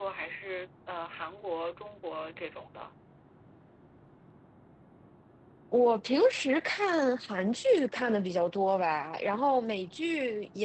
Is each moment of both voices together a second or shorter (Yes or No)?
Yes